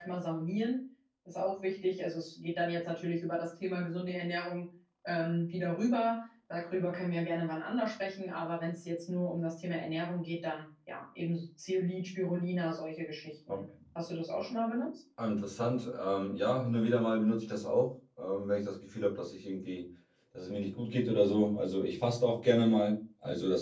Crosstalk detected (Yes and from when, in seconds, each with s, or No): No